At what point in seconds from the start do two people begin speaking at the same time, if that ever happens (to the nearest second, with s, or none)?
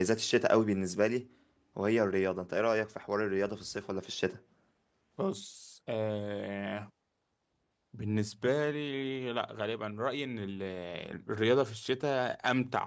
none